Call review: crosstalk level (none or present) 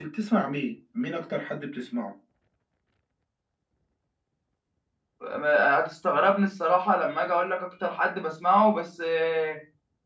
none